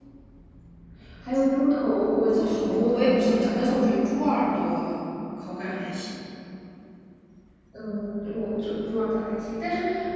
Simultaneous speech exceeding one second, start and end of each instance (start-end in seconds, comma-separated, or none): 2.3-3.7